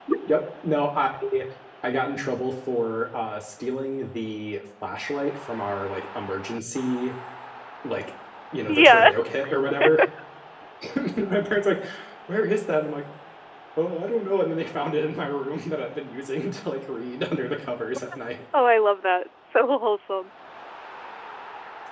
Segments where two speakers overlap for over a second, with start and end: none

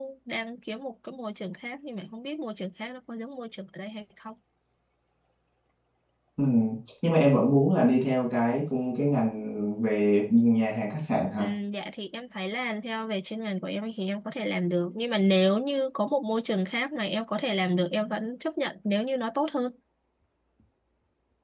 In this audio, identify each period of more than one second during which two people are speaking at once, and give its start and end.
none

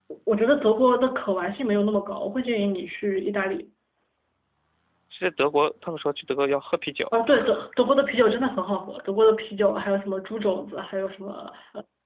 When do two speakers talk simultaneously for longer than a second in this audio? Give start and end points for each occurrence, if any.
none

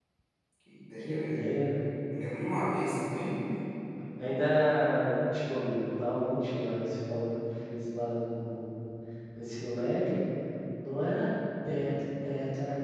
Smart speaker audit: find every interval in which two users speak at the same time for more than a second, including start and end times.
none

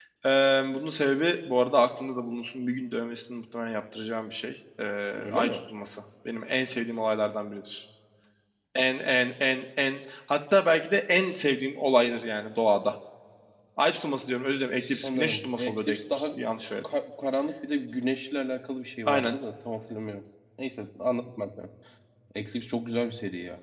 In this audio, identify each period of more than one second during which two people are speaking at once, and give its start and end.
14.8-16.3

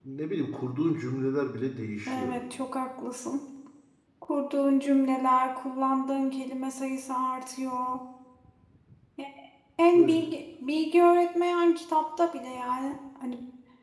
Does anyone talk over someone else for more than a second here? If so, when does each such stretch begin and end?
none

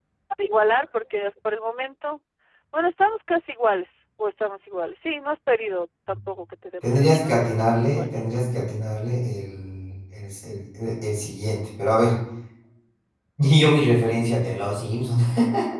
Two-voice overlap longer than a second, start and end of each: 6.8-8.0

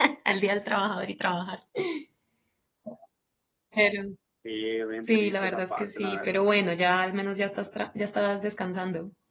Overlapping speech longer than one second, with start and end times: 5.1-6.4

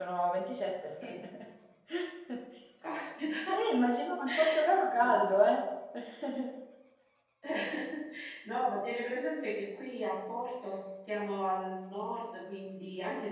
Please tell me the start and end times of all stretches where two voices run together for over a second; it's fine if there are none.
none

